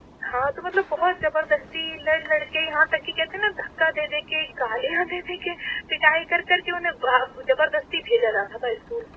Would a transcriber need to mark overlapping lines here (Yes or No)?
No